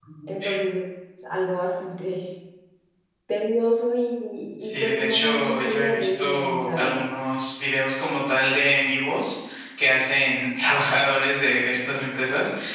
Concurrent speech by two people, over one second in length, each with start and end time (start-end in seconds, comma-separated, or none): 4.6-7.0